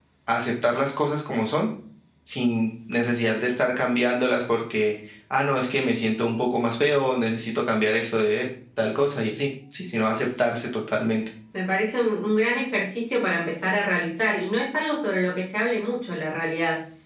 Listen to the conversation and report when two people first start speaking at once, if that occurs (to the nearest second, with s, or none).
none